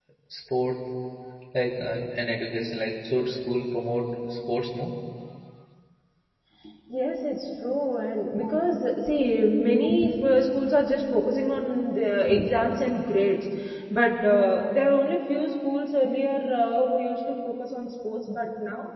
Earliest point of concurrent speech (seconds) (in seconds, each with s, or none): none